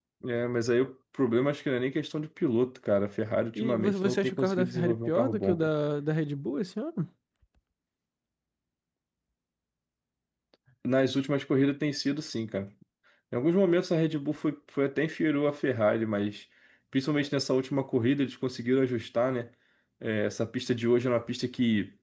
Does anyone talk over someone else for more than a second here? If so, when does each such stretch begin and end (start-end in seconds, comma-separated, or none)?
3.6-5.7